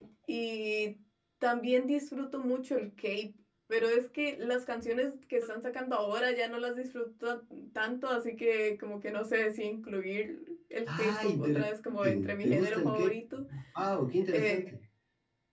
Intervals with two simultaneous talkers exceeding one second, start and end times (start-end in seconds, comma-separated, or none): 10.8-13.1